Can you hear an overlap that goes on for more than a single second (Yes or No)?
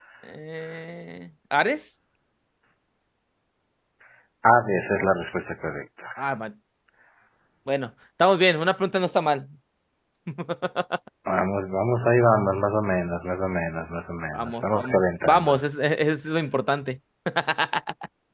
Yes